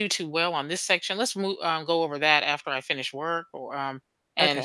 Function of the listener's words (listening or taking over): listening